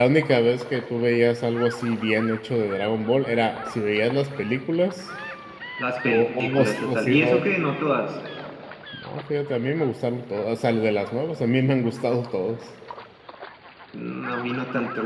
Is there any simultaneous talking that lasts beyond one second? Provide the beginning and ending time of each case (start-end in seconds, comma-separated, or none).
6.1-7.4